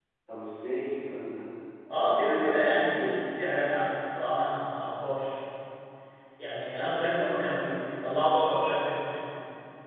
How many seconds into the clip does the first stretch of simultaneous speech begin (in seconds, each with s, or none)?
2.0 s